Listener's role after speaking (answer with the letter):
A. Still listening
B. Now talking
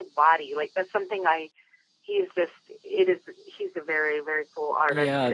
B